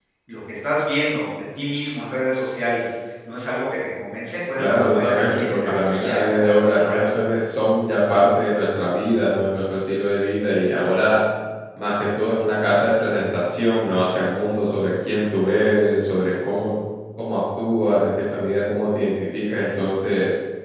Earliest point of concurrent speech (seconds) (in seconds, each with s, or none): 4.6 s